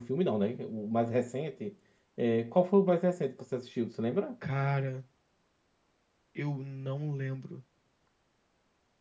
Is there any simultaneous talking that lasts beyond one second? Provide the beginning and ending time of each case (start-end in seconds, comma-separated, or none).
none